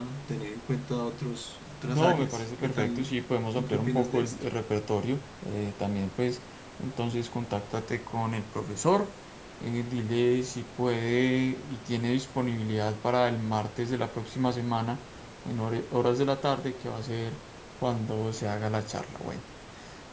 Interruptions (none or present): present